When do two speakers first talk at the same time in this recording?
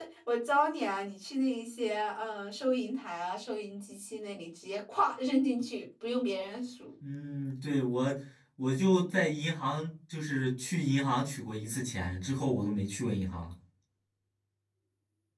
none

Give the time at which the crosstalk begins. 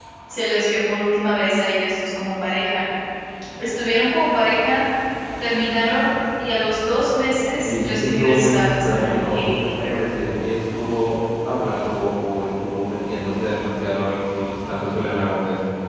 7.6 s

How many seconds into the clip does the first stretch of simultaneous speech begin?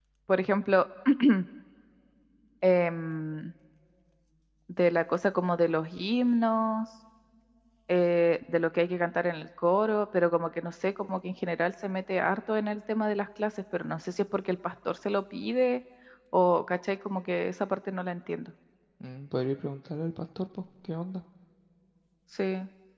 none

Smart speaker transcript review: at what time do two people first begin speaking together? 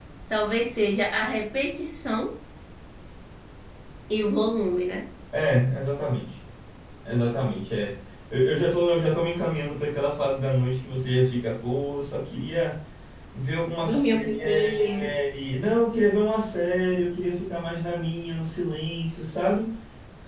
13.8 s

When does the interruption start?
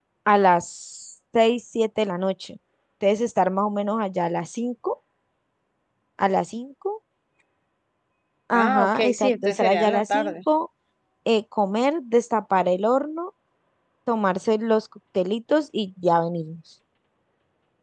8.5 s

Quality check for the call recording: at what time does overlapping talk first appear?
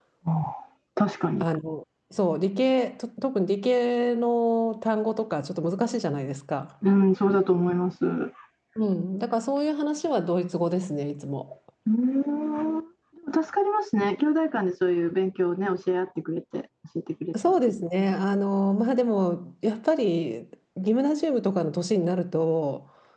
none

